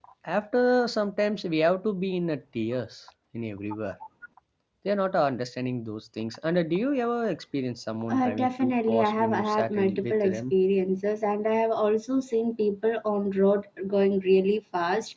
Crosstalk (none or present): present